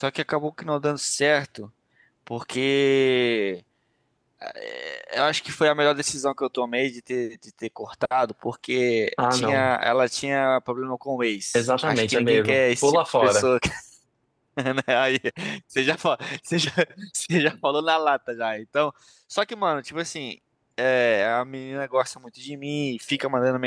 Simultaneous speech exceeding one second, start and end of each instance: 11.5-13.5

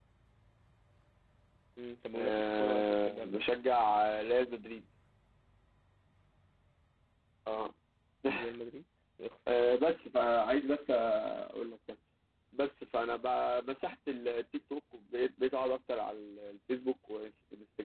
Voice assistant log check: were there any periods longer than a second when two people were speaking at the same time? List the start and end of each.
2.1-3.4

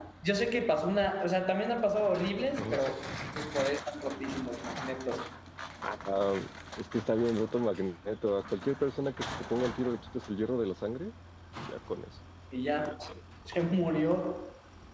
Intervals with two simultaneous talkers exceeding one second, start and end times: none

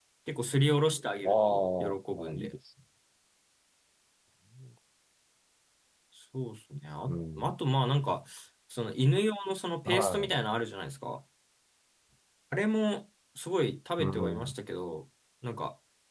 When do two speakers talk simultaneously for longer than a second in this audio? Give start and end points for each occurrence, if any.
1.2-2.5

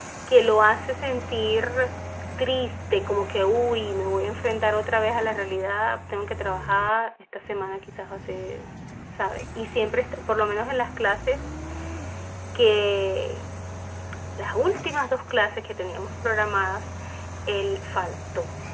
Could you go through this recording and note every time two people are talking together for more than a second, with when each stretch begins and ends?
none

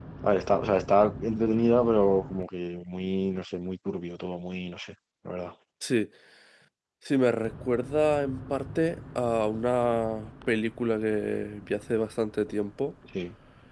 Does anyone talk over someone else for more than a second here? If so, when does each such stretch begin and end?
none

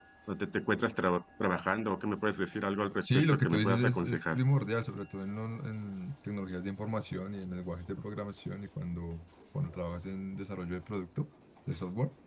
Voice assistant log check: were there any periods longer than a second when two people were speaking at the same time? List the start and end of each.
3.0-4.4

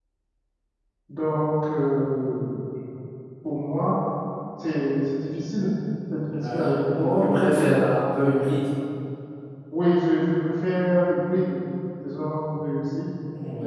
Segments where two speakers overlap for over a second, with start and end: 6.4-7.7

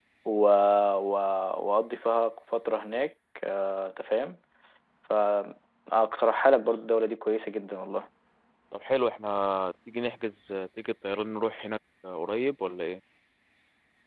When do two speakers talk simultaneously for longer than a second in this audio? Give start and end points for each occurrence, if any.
none

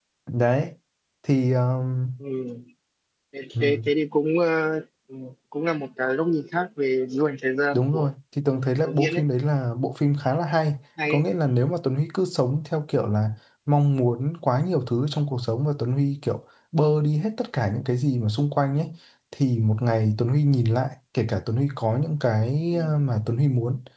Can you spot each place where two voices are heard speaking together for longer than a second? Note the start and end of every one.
none

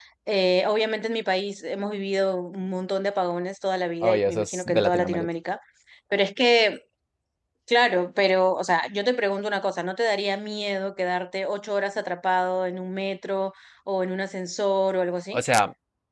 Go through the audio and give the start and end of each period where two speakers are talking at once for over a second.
4.0-5.3

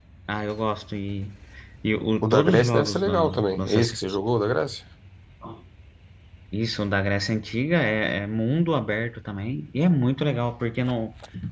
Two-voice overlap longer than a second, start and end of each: 2.2-4.0

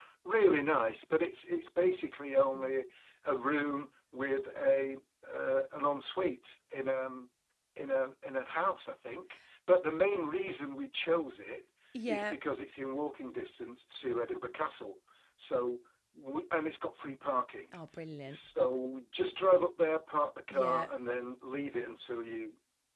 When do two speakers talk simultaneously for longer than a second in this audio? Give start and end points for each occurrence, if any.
none

